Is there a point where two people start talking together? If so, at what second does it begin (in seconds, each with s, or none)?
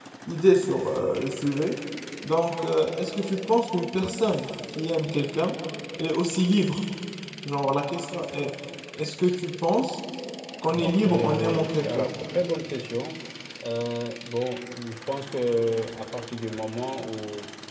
10.6 s